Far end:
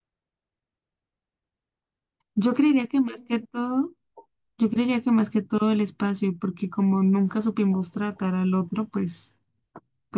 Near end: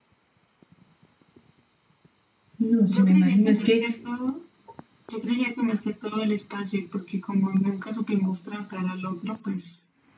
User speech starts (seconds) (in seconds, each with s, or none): 2.6 s